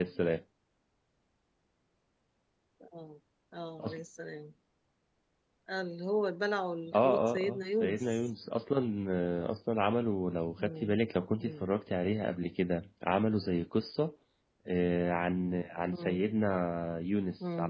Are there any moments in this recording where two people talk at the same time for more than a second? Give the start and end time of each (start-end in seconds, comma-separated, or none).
6.9-8.2